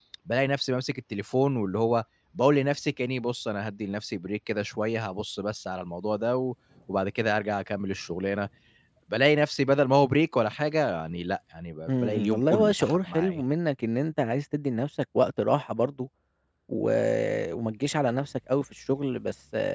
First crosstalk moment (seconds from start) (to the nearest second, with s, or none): 12 s